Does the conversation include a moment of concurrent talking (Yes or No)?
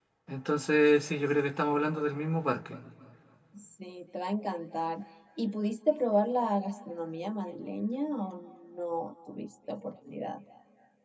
No